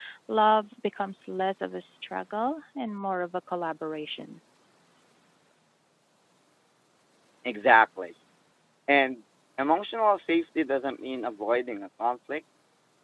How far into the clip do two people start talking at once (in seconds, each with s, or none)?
none